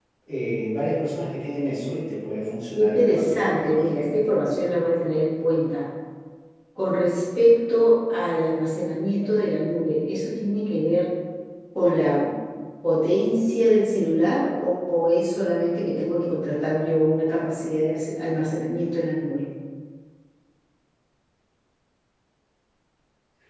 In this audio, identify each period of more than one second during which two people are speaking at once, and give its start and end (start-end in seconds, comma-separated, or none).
2.8-4.1